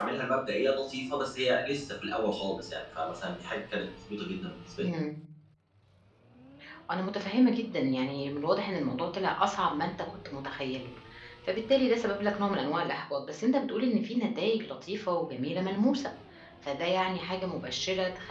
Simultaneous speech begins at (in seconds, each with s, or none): none